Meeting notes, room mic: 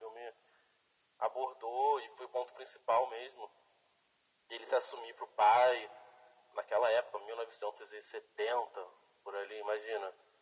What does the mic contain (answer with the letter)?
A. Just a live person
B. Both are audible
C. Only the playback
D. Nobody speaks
C